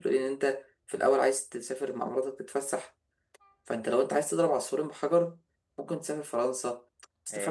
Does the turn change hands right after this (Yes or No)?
No